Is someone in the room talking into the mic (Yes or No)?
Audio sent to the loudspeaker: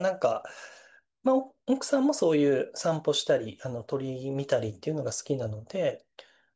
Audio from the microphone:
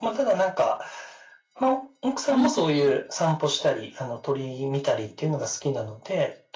Yes